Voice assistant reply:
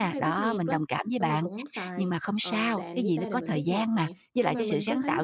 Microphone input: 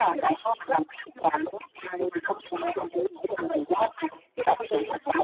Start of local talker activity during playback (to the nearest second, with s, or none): none